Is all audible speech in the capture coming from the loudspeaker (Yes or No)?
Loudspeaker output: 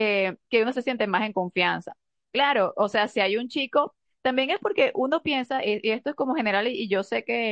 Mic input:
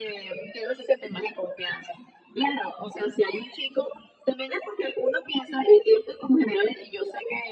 Yes